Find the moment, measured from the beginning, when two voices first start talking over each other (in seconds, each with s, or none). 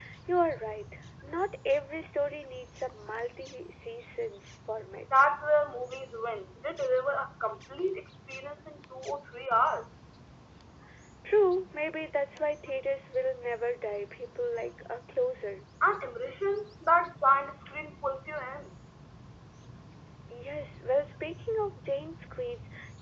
none